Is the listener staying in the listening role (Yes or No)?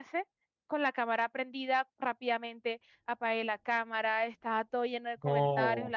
Yes